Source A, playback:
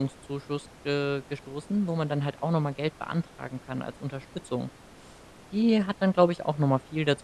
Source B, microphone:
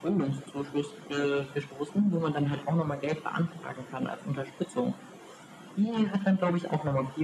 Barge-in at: none

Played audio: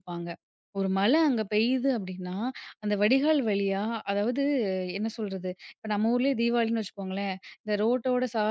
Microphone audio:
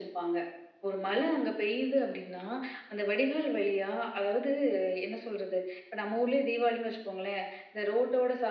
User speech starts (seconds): none

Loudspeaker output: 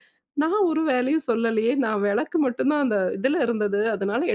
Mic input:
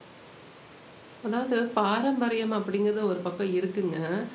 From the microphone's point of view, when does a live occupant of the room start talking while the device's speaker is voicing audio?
1.3 s

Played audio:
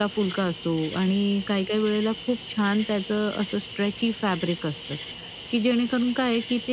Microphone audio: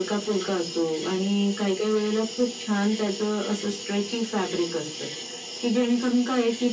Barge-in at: none

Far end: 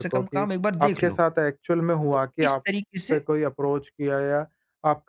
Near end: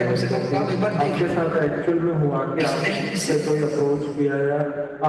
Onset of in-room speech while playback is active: none

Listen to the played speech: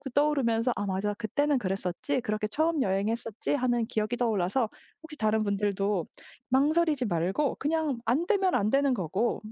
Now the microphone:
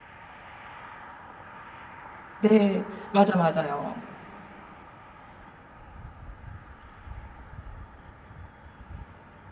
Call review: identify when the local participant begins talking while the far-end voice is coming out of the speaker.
2.4 s

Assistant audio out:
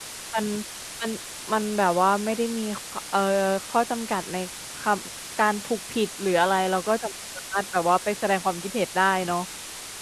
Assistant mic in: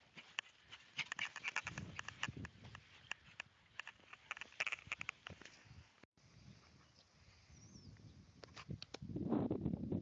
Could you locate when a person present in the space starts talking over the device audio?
none

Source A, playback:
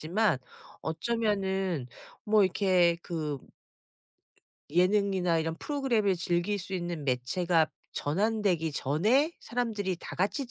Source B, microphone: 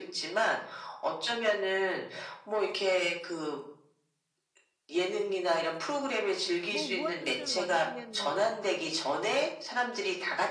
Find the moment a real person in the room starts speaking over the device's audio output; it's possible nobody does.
6.7 s

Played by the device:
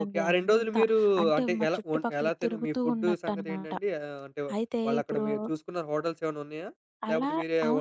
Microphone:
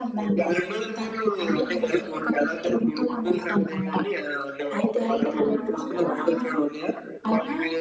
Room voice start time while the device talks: 5.0 s

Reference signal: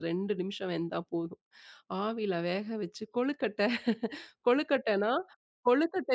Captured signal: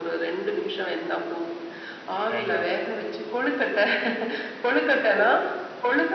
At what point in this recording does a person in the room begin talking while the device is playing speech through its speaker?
2.3 s

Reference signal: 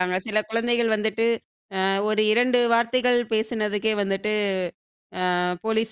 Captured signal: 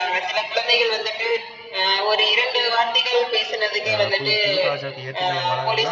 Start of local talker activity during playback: 3.9 s

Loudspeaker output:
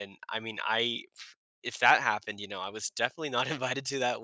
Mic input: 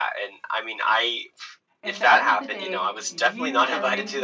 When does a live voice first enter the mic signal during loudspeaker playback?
1.8 s

